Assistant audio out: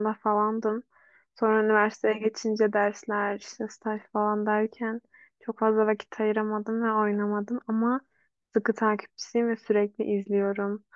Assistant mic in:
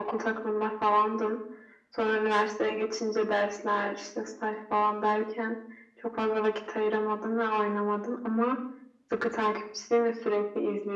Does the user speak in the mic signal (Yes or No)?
No